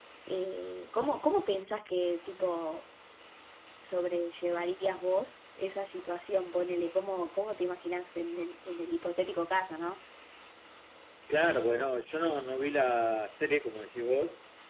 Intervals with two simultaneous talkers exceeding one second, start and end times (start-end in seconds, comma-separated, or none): none